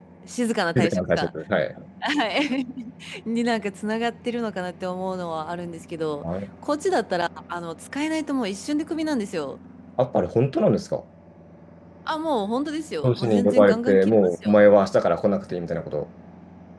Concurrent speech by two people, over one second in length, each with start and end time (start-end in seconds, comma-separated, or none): 13.0-14.6